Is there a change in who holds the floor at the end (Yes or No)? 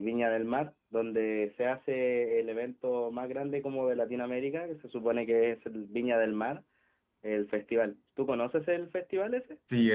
Yes